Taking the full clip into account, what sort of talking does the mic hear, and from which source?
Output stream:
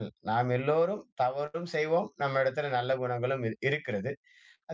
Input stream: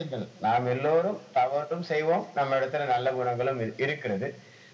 echo only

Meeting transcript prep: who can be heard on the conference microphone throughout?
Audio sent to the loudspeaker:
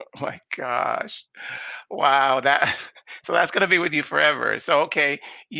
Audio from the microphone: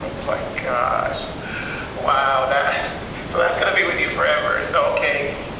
echo only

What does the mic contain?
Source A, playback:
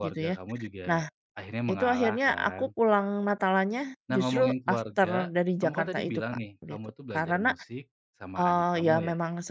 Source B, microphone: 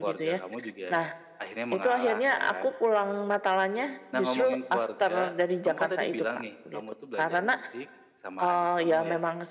echo only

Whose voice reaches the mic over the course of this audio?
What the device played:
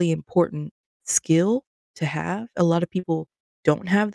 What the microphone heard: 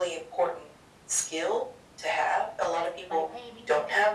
both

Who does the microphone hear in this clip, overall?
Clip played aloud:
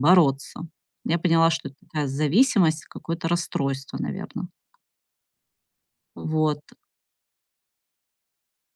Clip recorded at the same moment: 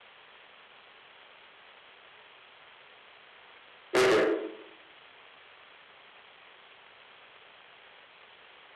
user only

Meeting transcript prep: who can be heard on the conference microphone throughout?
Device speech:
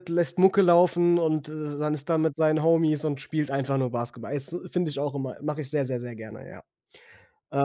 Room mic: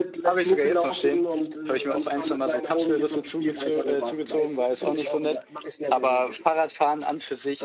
both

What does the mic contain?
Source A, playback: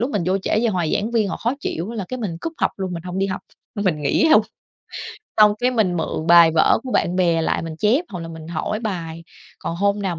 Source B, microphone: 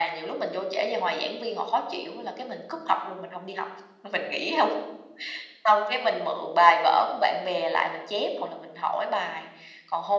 echo only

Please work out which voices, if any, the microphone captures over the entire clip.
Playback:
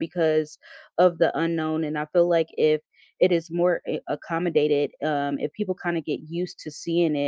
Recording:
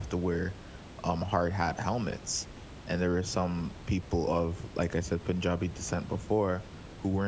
user only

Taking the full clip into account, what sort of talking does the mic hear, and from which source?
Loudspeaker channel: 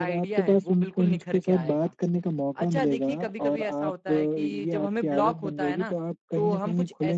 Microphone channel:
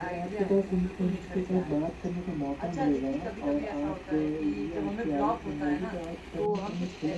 echo only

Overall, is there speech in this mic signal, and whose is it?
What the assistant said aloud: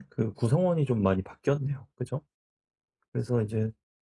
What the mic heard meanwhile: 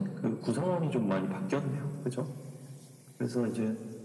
echo only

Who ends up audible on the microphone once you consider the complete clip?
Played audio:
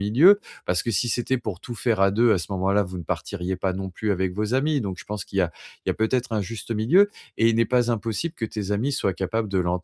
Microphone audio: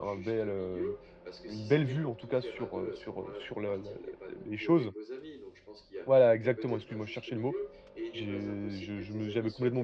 both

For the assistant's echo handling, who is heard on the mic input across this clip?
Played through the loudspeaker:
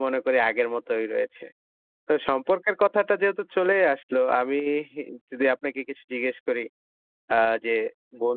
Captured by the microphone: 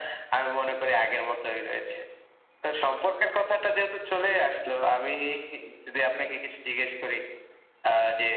echo only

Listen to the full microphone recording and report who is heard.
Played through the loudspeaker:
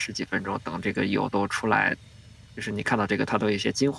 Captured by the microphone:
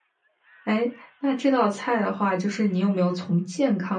user only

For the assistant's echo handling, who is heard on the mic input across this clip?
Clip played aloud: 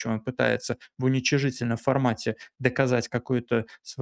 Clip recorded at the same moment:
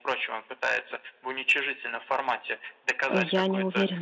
both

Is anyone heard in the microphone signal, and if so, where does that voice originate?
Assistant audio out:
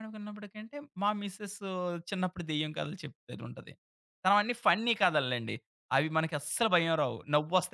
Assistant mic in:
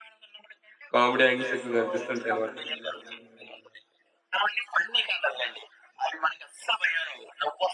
both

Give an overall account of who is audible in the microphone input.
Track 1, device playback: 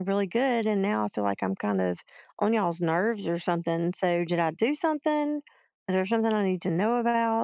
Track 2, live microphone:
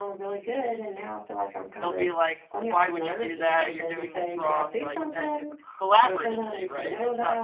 both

